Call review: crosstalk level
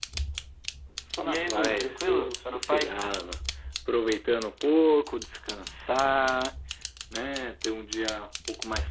present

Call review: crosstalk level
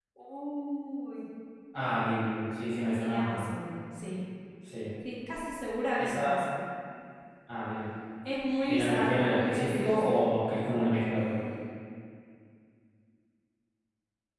present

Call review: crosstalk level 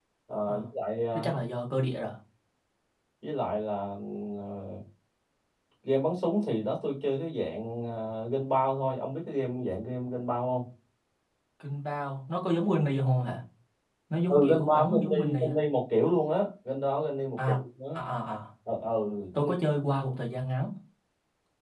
present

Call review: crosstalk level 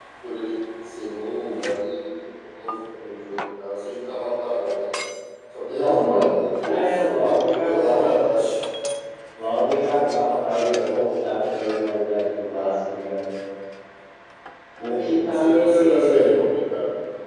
present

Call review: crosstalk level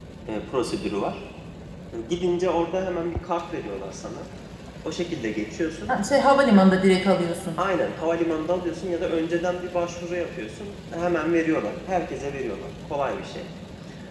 none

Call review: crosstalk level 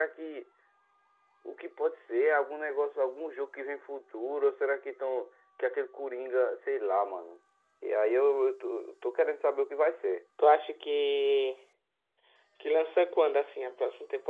none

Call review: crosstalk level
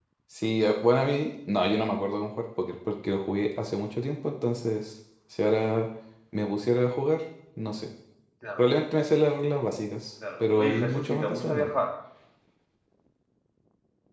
present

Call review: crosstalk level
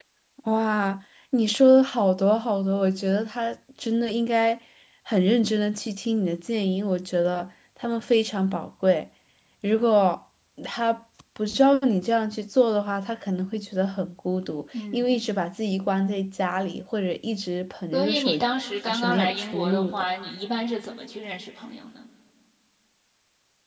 present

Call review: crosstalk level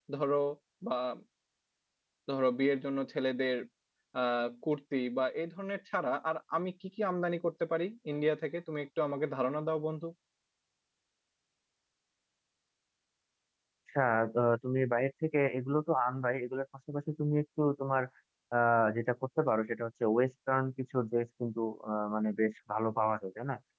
none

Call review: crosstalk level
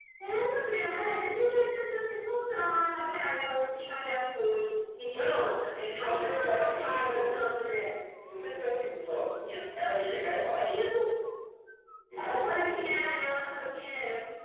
present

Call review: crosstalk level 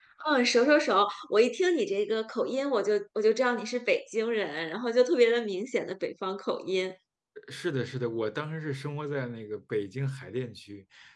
none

